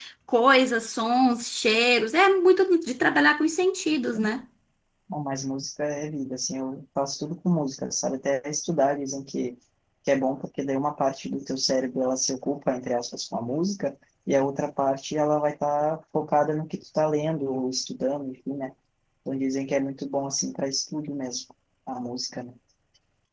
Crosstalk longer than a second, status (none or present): none